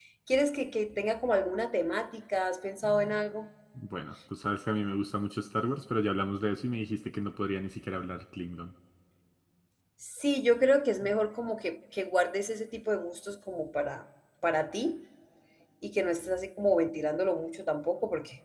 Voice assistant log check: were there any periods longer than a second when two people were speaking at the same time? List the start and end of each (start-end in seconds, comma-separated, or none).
none